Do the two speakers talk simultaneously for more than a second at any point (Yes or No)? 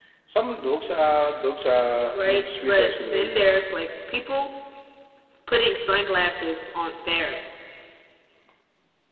Yes